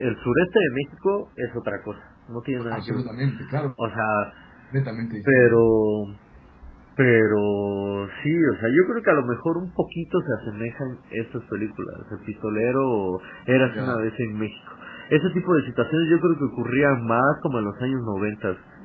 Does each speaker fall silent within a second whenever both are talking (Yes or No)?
Yes